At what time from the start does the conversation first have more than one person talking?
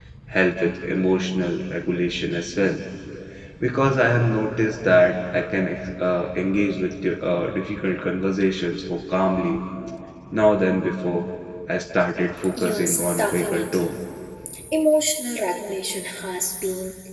12.6 s

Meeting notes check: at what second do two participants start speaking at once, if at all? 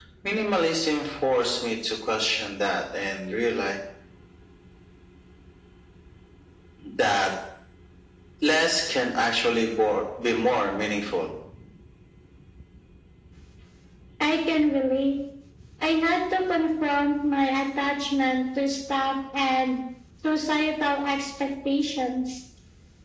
none

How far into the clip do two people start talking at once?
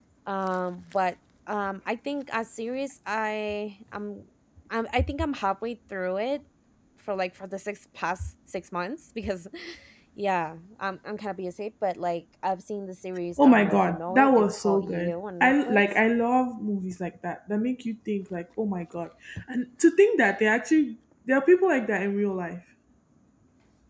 13.4 s

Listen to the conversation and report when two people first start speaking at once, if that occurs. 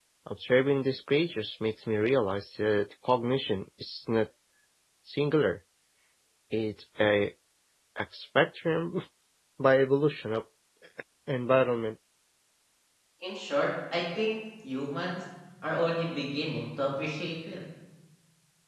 none

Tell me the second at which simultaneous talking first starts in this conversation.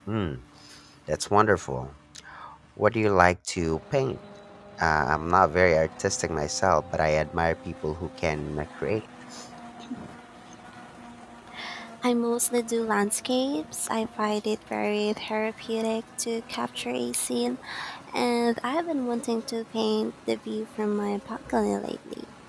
none

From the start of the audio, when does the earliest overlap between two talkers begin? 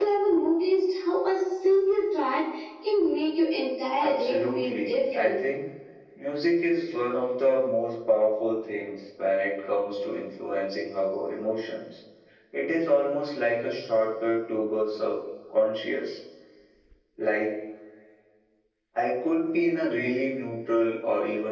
4.0 s

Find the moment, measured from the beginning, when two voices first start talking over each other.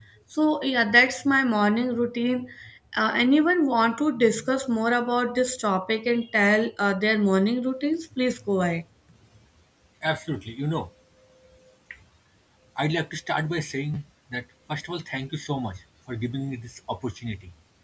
none

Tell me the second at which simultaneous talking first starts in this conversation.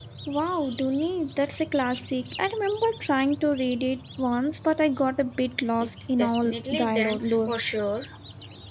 5.8 s

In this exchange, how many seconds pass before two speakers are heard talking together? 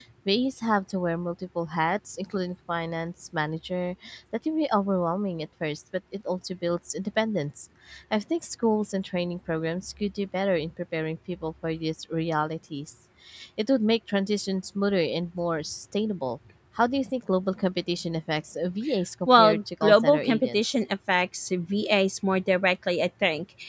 19.3 s

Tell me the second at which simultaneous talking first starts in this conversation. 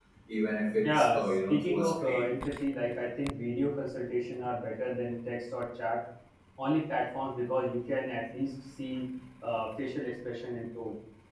0.8 s

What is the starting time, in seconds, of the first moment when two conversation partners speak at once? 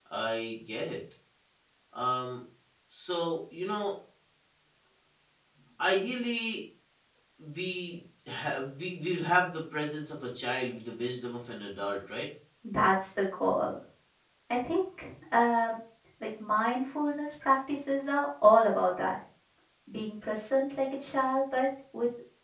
none

